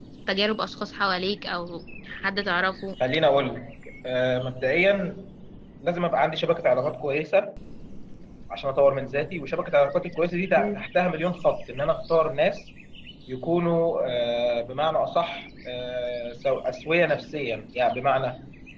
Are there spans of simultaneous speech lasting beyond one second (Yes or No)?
No